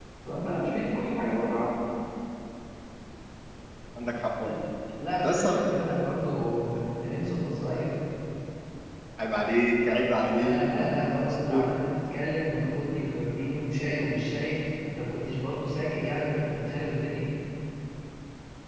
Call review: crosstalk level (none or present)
present